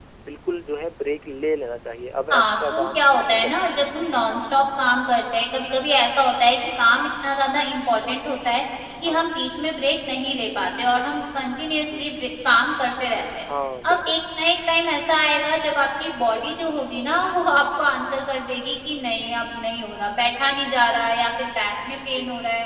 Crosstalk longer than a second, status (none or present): present